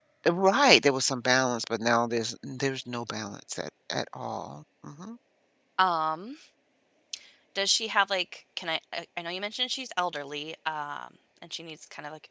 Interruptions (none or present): none